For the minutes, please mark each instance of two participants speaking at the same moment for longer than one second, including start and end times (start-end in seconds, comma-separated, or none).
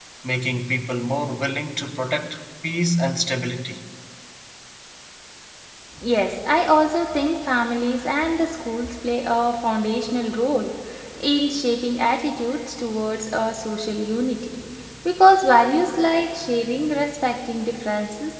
none